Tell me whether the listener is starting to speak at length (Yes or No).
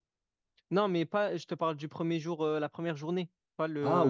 Yes